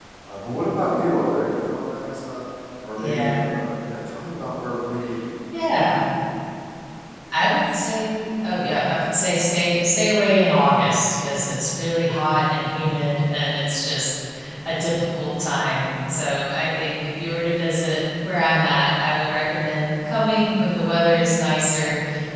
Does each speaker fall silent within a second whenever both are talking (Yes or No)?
Yes